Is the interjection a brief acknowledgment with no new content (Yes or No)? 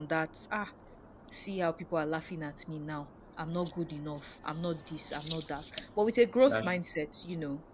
Yes